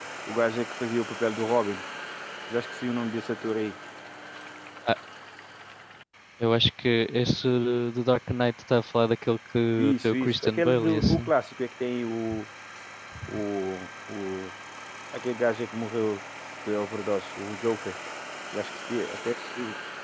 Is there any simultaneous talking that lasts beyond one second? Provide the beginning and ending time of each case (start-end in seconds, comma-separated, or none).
9.8-11.3